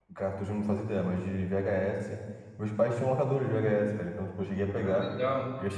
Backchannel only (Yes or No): Yes